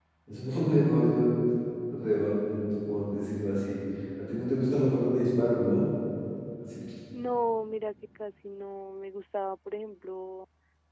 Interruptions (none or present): none